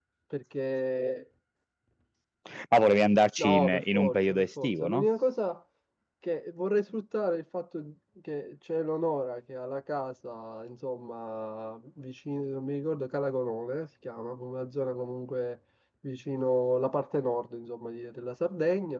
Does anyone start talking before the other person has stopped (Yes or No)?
Yes